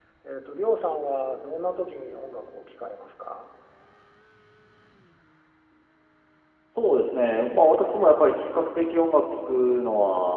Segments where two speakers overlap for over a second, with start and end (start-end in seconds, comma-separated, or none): none